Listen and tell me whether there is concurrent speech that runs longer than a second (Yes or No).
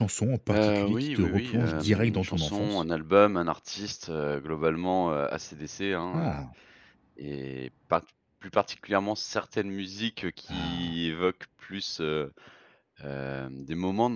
Yes